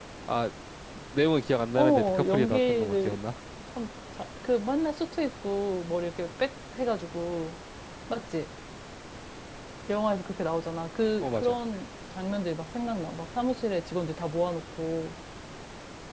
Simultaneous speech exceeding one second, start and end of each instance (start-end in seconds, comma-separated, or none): 1.8-3.2